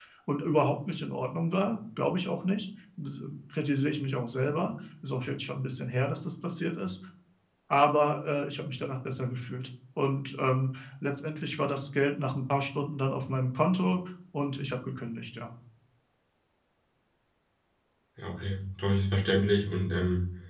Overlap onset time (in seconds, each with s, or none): none